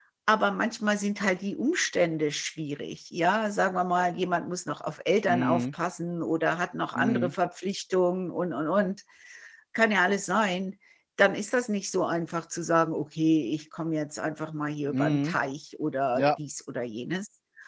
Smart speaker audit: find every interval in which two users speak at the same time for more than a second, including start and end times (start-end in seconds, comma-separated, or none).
none